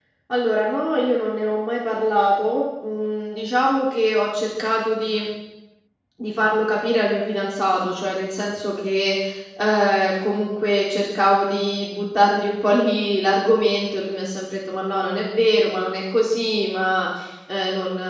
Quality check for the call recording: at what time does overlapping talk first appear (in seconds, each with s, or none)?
none